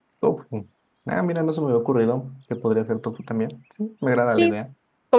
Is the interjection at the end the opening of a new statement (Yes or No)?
Yes